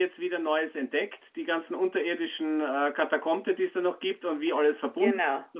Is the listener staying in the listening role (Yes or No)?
Yes